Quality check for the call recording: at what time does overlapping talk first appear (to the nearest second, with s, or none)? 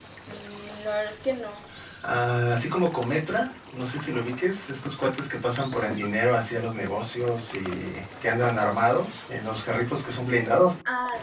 none